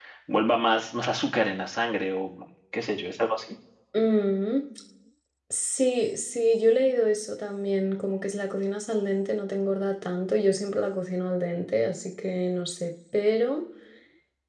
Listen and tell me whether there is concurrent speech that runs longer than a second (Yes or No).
No